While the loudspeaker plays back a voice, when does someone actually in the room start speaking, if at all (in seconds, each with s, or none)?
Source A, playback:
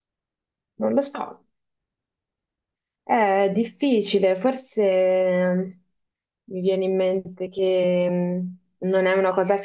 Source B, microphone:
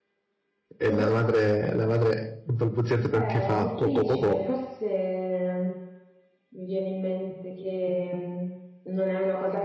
0.8 s